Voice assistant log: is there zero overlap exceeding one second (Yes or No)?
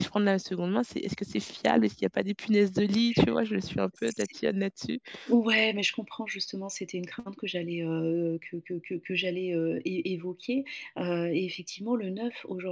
Yes